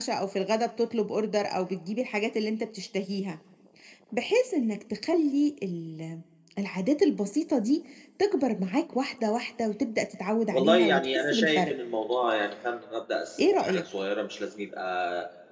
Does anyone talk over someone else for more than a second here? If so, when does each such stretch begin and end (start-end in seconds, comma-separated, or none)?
10.5-11.8